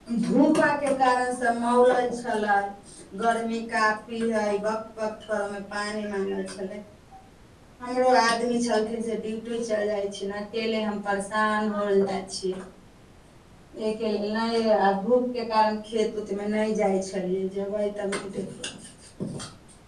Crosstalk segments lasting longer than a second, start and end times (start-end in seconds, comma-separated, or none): none